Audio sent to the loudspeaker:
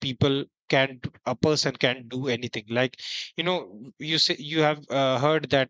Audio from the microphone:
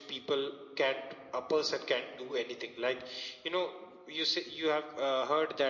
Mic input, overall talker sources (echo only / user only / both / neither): echo only